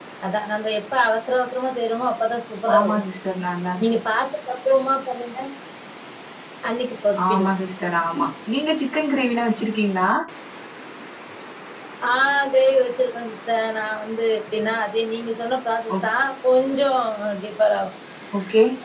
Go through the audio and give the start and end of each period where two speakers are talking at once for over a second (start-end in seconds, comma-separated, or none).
none